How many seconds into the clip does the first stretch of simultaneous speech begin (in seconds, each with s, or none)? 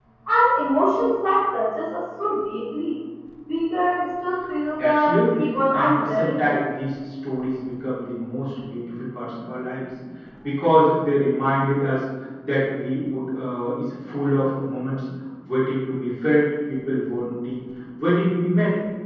4.8 s